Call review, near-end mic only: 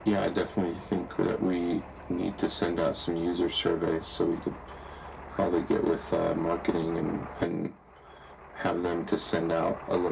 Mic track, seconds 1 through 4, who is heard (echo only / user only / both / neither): echo only